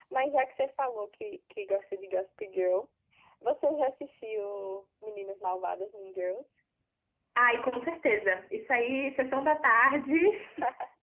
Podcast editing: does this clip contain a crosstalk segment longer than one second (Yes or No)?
No